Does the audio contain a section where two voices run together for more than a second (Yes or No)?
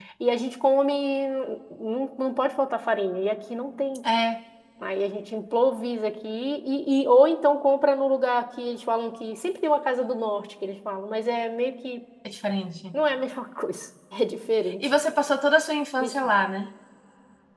No